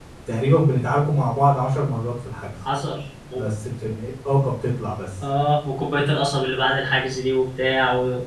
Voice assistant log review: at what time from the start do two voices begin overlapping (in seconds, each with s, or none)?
none